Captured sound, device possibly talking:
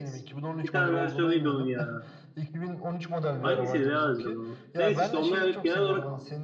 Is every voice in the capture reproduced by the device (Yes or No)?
No